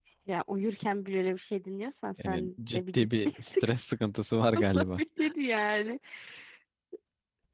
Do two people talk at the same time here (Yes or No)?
Yes